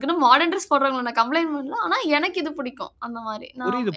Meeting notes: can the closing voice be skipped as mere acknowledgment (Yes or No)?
No